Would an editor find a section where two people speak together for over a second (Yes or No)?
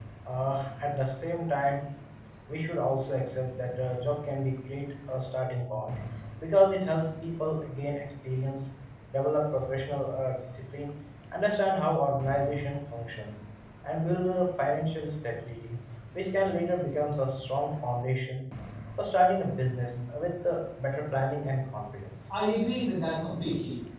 No